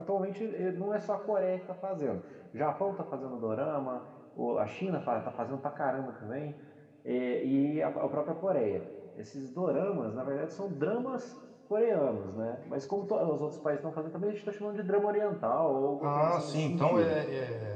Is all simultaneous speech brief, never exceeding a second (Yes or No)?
No